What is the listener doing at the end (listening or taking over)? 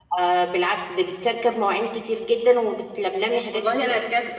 taking over